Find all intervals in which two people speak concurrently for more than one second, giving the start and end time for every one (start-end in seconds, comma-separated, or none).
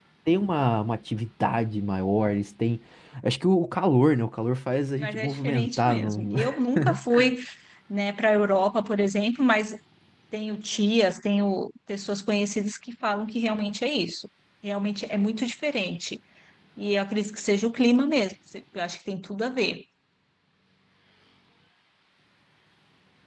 5.0-6.3